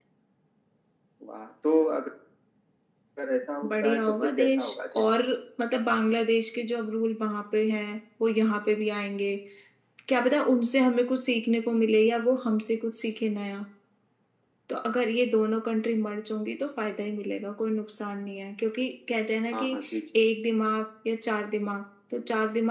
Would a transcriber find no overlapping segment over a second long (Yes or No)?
No